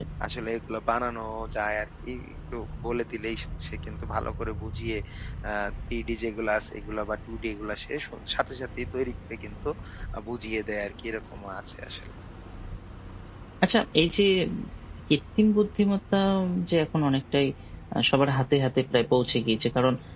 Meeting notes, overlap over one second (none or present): none